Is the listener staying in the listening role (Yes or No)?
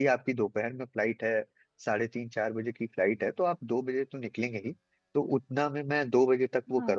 Yes